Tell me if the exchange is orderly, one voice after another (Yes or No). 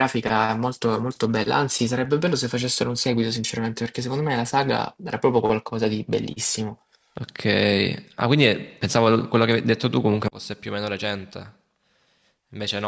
Yes